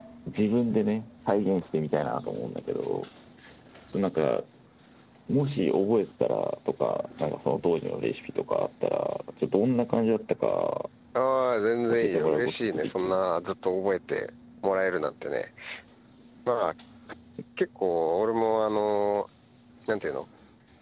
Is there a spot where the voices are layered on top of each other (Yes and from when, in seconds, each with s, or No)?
Yes, from 11.9 s